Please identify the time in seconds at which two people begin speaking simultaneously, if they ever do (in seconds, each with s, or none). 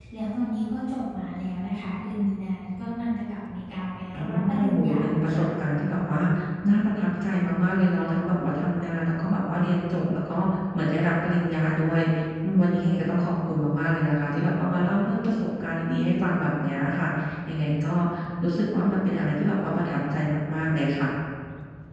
4.1 s